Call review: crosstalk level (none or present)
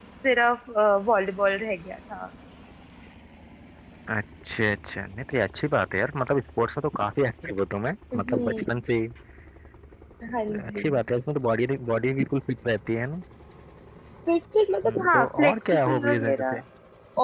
present